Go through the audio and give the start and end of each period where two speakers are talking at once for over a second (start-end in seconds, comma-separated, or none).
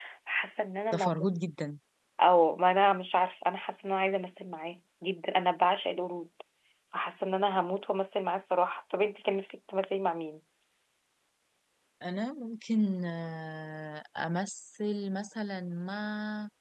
none